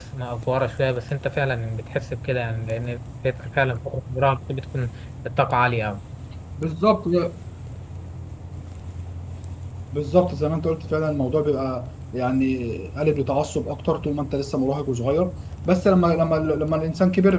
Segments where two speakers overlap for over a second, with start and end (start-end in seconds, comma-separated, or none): none